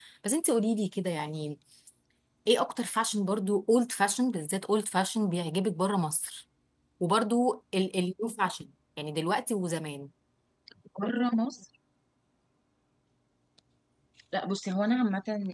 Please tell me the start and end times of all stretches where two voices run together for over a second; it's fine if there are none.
none

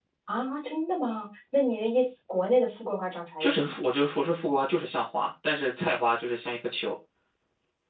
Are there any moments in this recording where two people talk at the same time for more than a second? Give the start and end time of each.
none

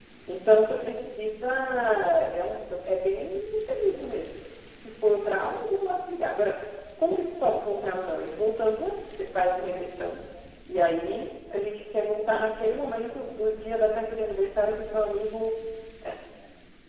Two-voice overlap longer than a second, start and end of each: none

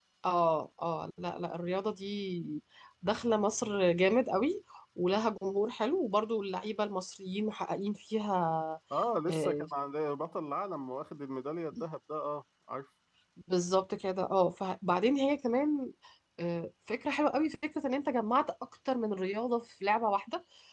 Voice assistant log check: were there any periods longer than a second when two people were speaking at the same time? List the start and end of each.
none

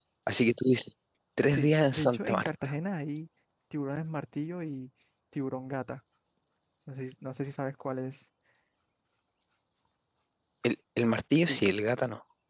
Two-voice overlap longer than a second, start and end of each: 1.5-2.7

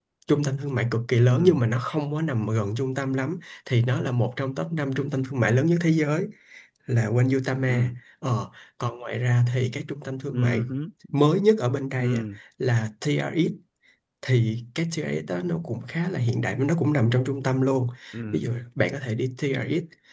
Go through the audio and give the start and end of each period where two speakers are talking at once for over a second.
none

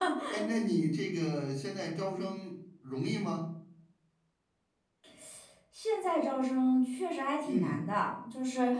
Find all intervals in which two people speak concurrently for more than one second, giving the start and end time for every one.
none

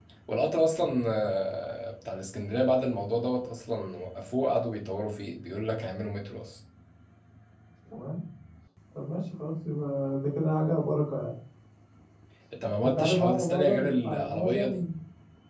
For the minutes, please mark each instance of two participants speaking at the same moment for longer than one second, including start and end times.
12.8-14.8

